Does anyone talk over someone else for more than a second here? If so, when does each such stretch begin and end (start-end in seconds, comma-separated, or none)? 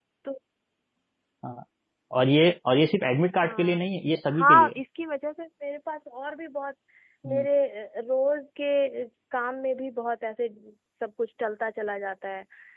none